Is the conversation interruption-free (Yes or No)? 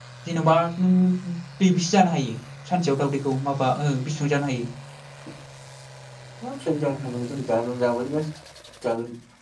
Yes